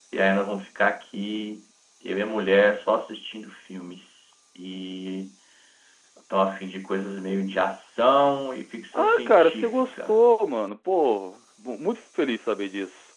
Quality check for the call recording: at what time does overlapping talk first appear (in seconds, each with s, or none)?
8.9 s